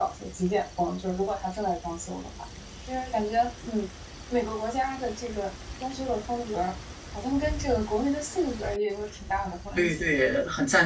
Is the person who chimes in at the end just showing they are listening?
No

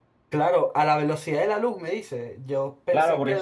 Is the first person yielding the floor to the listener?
Yes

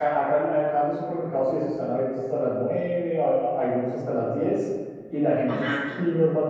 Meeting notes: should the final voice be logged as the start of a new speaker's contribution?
No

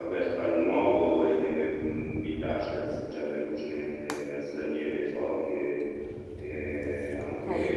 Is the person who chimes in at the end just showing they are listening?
No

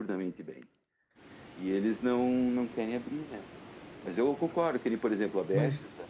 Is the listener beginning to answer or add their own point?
No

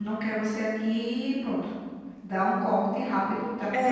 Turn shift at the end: Yes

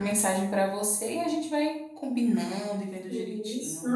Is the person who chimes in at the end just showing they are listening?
No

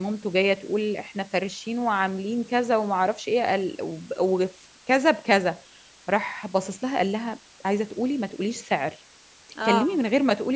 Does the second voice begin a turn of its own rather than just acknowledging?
No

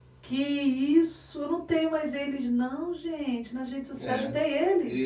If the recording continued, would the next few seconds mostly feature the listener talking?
Yes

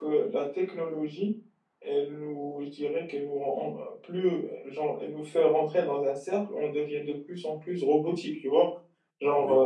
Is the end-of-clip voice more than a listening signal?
No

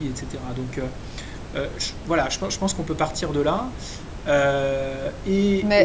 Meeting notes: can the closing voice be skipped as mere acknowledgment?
No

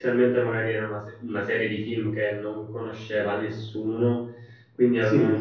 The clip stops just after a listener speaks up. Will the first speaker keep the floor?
Yes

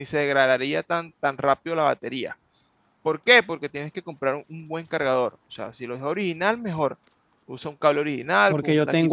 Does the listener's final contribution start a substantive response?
Yes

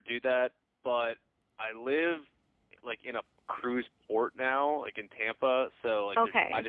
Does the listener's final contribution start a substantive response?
No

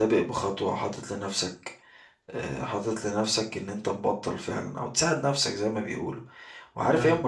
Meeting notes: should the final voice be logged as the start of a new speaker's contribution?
No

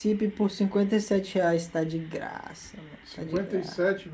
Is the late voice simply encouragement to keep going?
No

